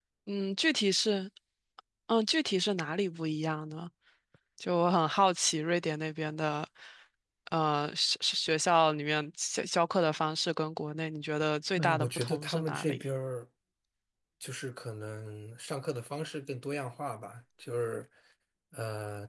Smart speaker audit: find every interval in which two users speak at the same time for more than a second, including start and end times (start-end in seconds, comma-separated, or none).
11.8-13.0